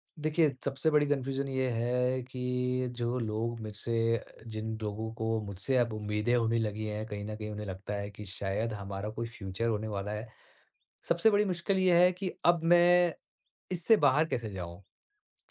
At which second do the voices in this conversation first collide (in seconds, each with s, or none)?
none